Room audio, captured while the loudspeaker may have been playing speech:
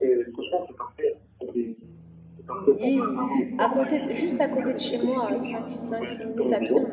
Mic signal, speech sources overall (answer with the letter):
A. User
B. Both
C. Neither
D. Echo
B